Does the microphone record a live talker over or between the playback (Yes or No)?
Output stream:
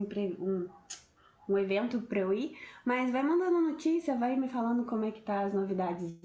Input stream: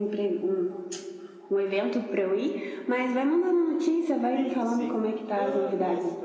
Yes